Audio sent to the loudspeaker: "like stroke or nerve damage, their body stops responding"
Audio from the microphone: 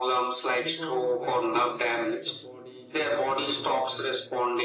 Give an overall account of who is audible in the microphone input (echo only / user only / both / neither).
both